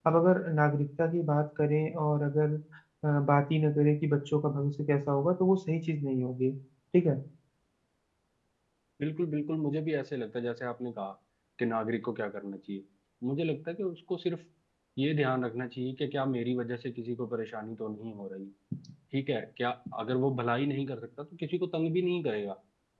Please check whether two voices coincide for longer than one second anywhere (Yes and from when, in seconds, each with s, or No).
No